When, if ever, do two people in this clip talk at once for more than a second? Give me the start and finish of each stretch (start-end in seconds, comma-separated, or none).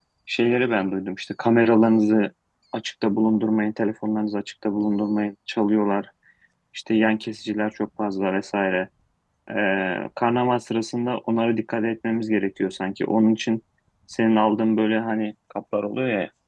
none